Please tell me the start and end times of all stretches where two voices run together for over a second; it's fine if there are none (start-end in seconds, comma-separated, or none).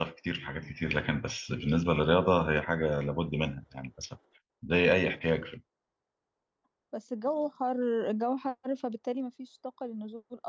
none